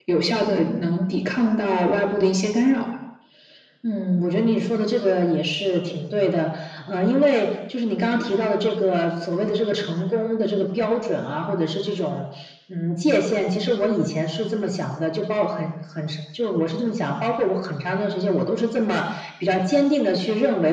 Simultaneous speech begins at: none

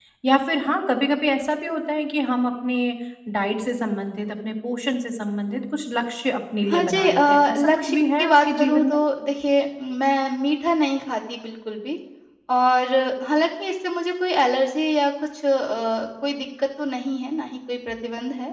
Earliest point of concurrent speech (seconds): 6.7 s

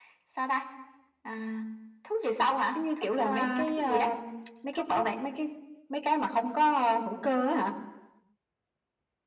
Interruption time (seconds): 2.8 s

